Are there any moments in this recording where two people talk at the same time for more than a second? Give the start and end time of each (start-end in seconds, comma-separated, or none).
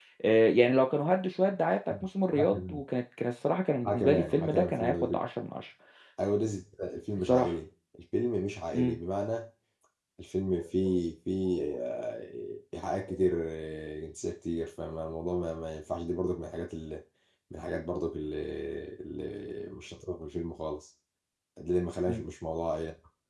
3.8-5.2